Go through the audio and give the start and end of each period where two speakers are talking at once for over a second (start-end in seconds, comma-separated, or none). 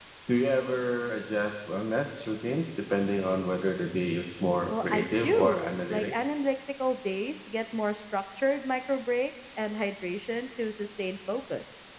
4.7-6.2